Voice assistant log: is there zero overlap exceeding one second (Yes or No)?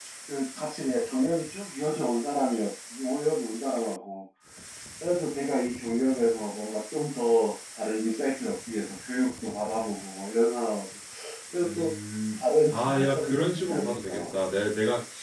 No